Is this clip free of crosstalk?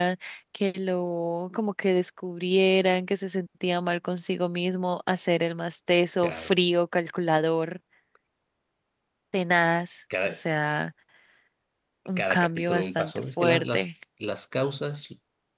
No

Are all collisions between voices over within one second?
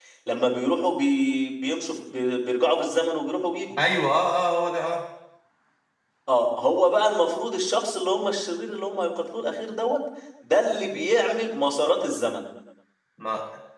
Yes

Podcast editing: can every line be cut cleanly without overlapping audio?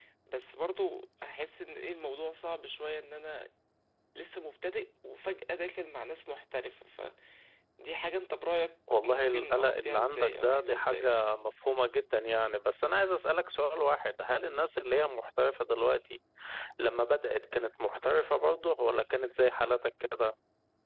No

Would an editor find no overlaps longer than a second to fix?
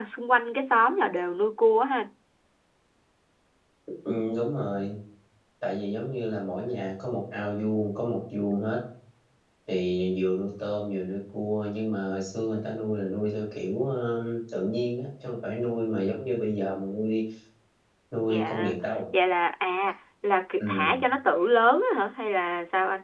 Yes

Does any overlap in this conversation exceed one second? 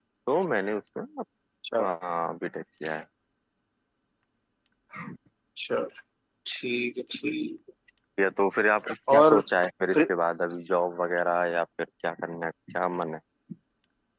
No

